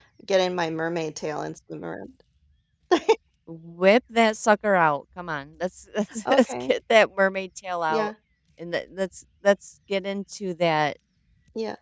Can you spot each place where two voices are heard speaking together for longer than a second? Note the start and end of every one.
none

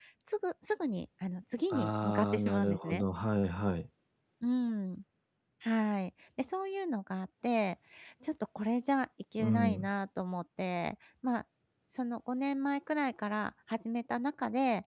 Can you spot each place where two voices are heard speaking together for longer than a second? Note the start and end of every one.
1.7-3.0

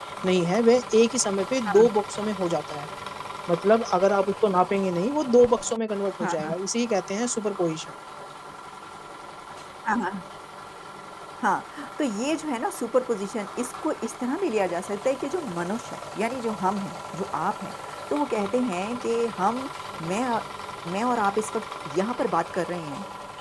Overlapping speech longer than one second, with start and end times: none

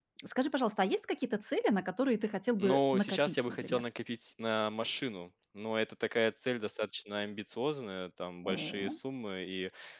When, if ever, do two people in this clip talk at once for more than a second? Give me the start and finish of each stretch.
2.6-3.8

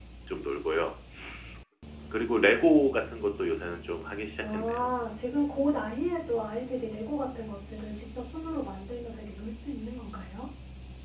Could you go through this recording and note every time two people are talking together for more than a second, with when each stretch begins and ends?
none

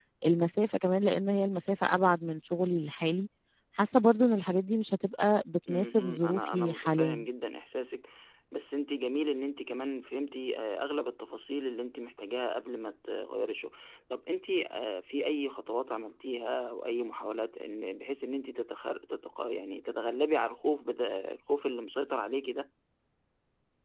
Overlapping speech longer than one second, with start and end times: 5.7-7.2

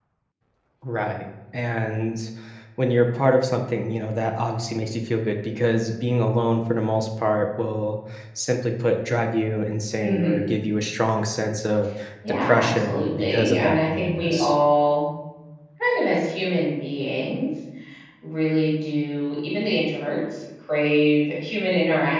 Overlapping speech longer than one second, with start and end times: 12.4-14.5

